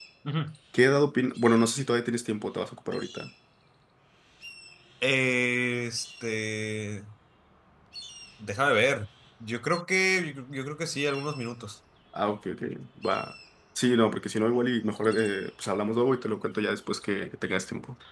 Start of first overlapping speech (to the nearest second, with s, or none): none